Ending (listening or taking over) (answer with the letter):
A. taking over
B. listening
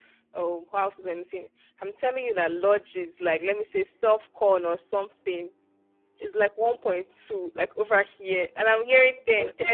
A